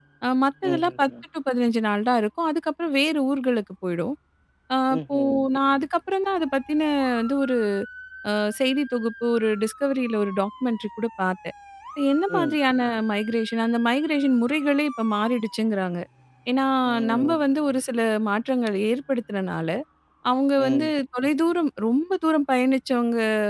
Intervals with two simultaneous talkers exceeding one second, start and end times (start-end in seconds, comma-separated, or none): none